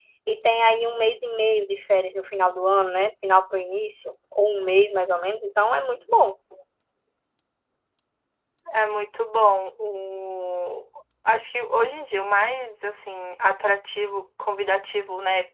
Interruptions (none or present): none